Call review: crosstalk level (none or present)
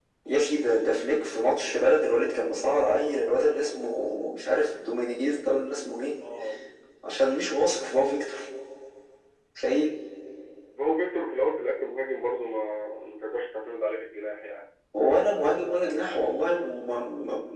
none